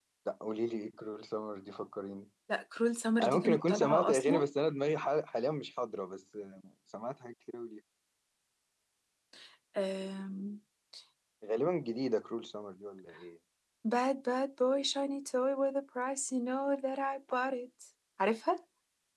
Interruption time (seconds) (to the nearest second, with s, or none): 3 s